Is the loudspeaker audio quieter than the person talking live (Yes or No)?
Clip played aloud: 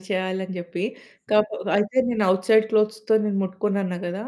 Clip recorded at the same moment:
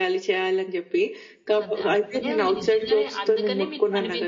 No